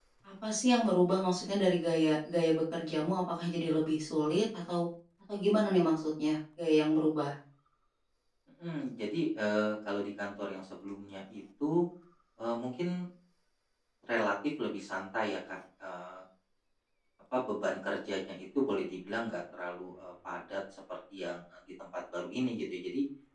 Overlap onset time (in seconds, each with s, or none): none